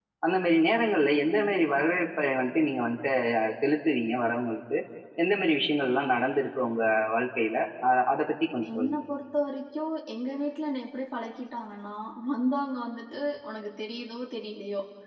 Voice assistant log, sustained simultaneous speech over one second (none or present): none